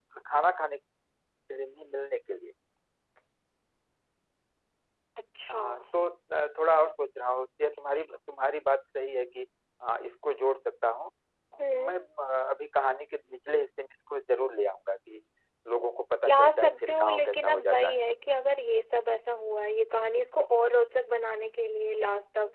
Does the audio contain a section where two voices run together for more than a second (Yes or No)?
Yes